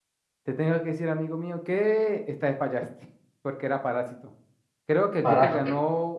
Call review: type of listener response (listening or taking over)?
listening